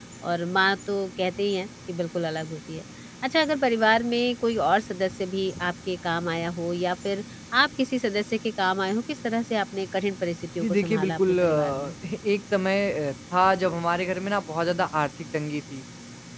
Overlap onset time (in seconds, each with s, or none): 10.6 s